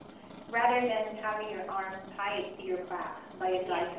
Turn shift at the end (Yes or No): Yes